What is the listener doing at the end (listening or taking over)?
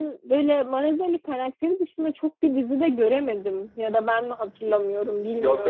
taking over